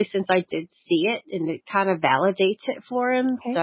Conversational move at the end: taking over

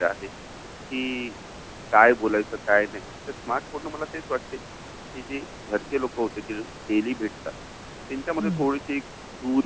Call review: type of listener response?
listening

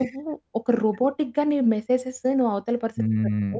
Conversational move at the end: listening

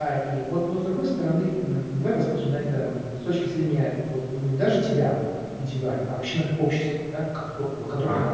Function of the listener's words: listening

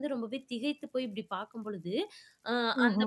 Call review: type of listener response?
listening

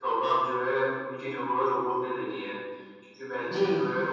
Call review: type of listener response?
listening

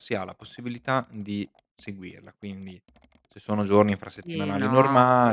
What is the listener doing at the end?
taking over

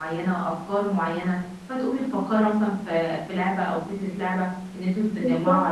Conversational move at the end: listening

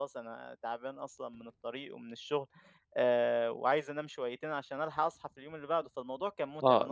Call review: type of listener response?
taking over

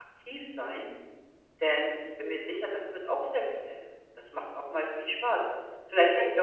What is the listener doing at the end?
taking over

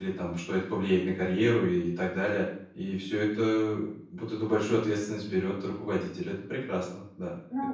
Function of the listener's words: taking over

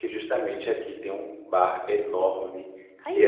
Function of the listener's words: listening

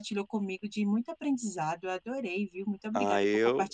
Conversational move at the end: taking over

